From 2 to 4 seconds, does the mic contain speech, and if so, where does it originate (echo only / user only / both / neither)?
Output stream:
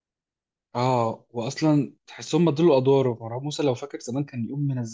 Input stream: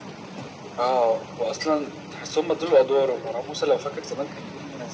echo only